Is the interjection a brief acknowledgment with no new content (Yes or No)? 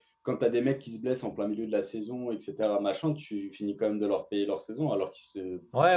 No